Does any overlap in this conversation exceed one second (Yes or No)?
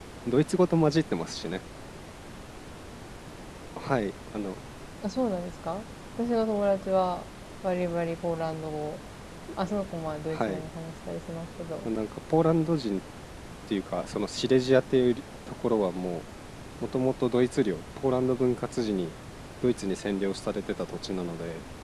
No